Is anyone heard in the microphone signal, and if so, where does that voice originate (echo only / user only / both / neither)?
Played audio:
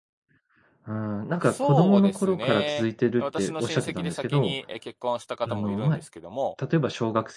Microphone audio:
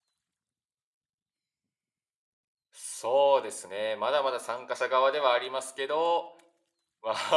user only